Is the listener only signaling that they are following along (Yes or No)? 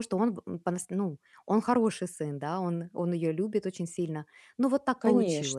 No